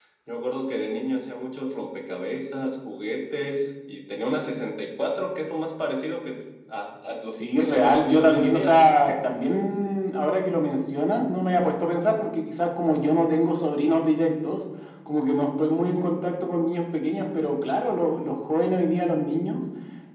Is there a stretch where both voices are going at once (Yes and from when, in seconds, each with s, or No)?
Yes, from 7.3 s